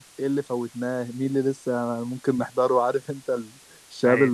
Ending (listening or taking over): listening